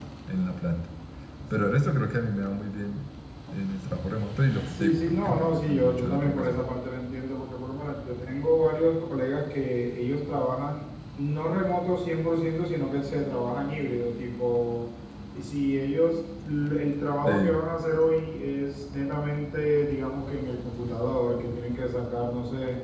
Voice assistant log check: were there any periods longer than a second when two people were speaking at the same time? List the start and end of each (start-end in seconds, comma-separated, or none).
4.7-6.6